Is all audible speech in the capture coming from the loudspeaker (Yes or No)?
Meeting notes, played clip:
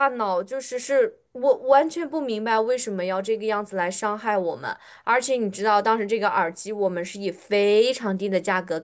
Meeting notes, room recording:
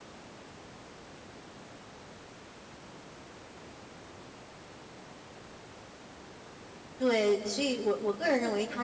No